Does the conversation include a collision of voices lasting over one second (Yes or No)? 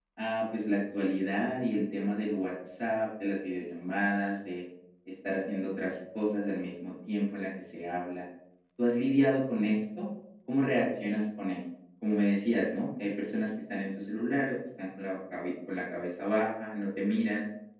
No